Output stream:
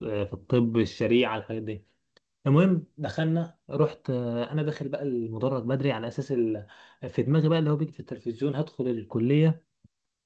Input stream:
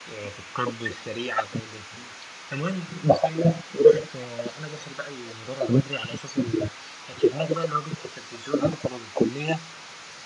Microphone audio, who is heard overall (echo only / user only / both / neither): echo only